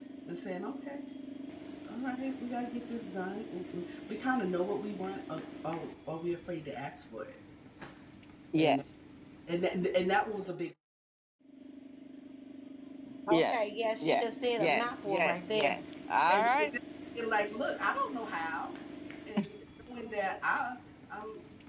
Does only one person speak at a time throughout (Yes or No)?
No